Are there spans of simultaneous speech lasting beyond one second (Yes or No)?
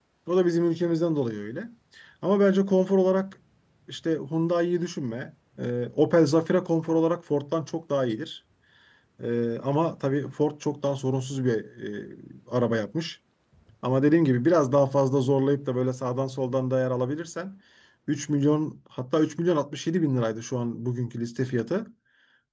No